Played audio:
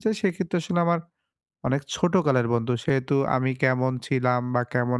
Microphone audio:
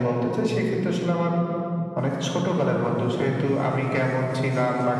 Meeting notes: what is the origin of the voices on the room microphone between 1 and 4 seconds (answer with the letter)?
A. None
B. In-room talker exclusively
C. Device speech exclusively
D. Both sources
C